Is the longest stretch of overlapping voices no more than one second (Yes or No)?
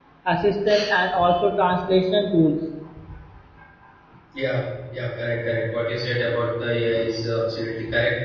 Yes